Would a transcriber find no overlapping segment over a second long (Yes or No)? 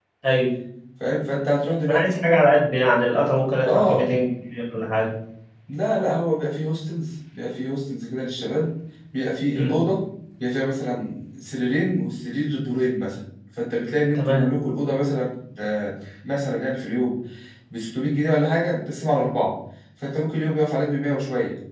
Yes